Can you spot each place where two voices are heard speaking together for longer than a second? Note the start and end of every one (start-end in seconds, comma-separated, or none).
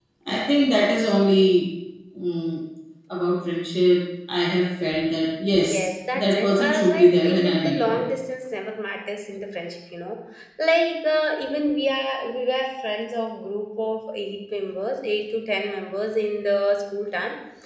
5.6-8.1